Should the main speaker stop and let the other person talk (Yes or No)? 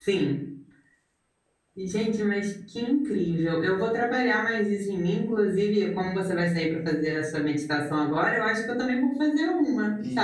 Yes